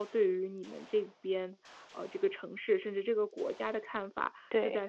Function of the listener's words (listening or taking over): listening